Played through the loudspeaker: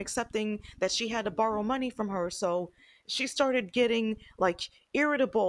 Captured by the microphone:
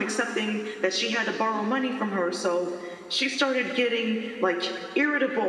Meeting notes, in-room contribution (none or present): none